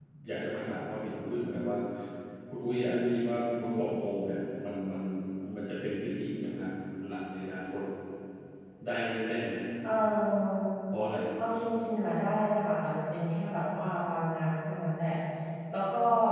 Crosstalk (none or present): none